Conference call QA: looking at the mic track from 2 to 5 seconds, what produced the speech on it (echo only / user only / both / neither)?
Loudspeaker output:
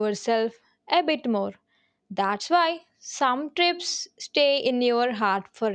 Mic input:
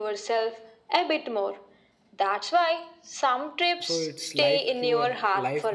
both